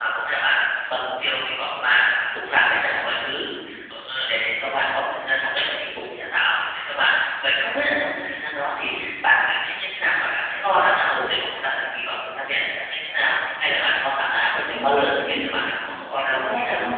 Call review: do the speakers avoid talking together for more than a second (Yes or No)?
No